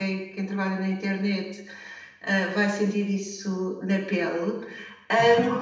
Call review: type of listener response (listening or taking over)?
listening